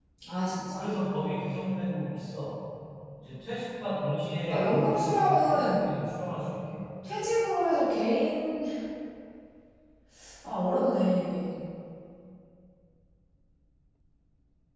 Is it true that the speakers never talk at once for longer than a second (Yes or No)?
No